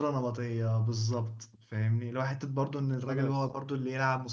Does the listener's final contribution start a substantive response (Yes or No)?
No